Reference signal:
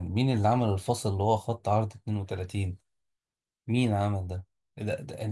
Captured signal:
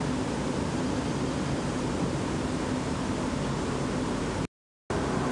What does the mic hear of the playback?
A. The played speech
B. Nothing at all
B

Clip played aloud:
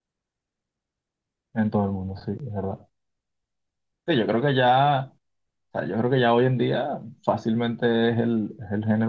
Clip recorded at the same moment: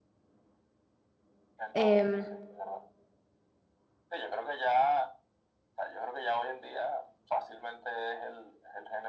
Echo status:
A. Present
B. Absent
A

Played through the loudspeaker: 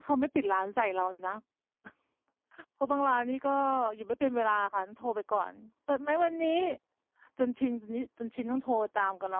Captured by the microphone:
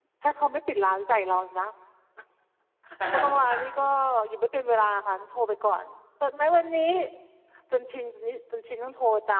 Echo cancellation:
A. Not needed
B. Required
B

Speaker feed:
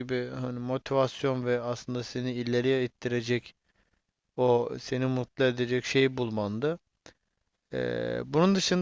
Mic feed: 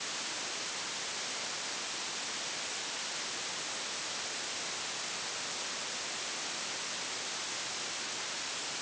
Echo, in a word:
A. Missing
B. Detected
A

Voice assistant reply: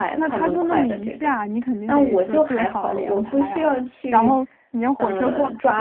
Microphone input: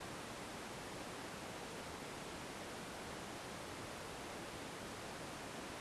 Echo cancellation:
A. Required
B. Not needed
B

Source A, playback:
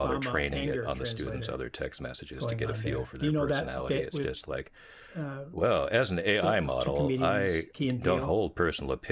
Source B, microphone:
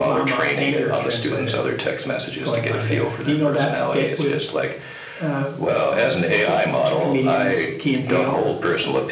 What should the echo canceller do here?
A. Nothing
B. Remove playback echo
B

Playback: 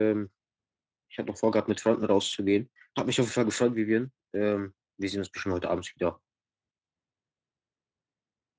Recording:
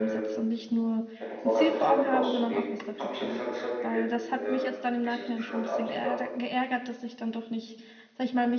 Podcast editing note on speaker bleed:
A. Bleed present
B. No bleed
A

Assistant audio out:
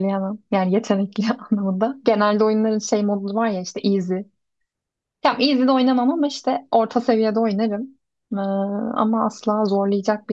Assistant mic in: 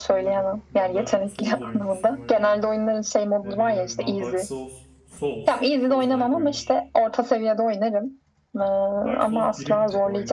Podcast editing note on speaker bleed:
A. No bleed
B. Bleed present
B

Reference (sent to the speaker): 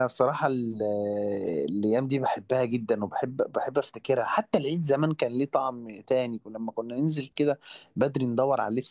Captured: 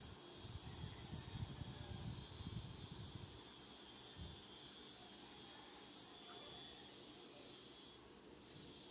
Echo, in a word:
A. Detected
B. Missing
B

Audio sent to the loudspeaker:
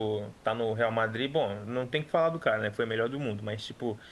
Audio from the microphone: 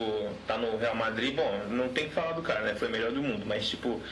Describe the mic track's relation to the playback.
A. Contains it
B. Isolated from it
A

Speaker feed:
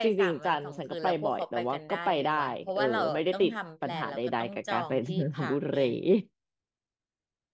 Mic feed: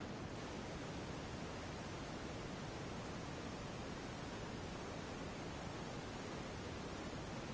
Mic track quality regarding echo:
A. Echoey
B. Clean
B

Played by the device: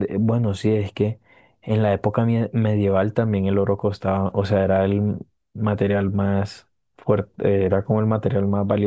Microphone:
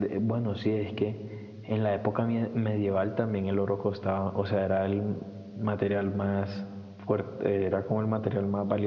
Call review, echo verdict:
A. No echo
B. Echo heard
B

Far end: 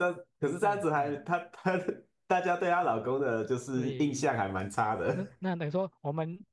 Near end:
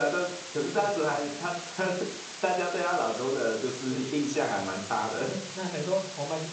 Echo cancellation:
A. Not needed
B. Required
B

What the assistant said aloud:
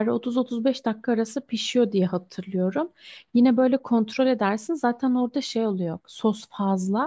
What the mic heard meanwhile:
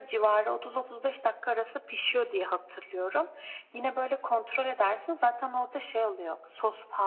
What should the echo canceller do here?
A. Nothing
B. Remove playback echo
B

